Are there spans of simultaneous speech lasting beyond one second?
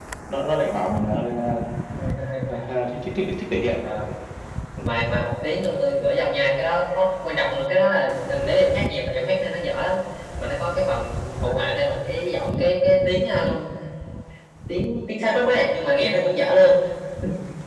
No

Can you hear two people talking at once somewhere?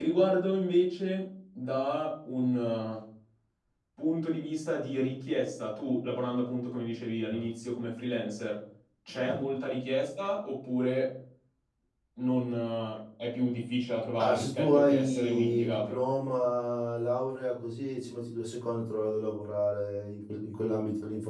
Yes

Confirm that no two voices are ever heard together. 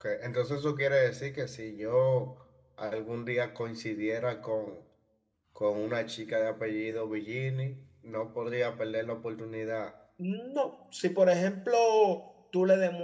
Yes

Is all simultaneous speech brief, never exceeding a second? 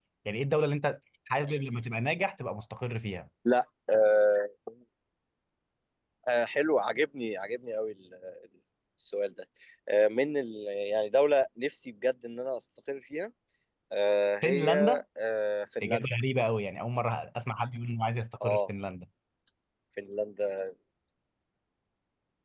Yes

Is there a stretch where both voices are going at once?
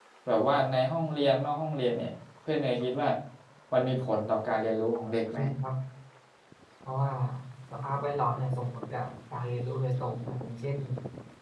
No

